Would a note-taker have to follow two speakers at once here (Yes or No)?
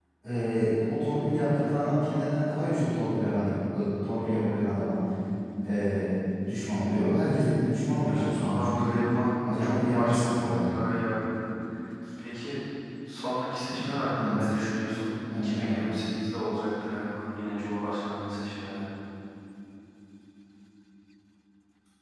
Yes